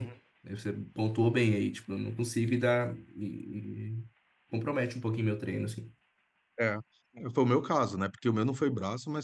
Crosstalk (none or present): none